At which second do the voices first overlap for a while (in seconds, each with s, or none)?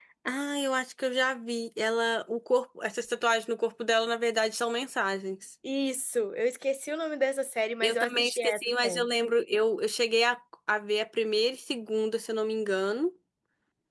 7.8 s